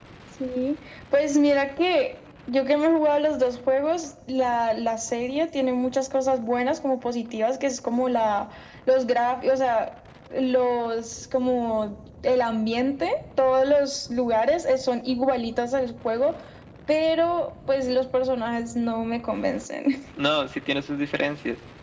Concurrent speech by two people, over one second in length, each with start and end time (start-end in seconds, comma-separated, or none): none